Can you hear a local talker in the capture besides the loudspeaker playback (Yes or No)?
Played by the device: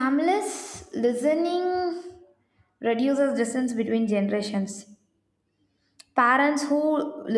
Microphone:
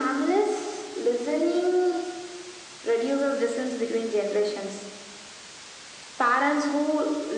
No